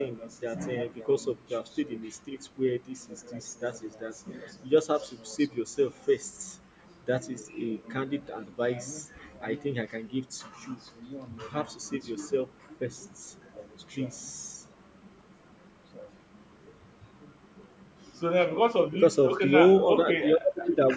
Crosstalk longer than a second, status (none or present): present